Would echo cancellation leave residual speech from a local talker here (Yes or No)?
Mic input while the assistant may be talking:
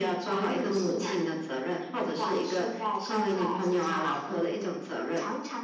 No